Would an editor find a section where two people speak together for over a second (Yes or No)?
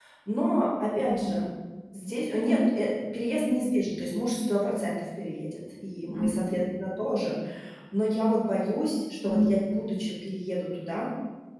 No